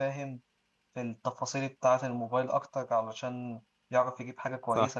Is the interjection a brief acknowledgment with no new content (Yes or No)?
Yes